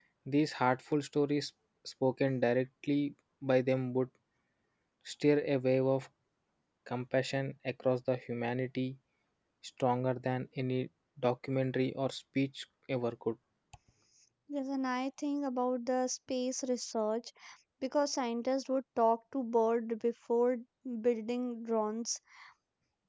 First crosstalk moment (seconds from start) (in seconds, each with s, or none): none